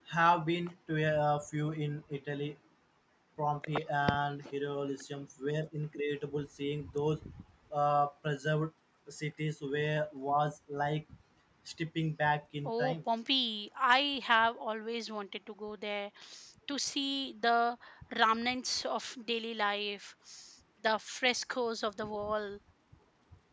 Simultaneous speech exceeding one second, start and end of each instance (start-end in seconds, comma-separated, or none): none